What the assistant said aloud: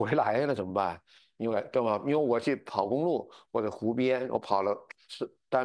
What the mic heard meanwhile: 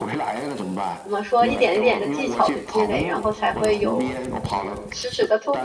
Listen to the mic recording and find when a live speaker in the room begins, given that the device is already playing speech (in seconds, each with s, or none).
1.0 s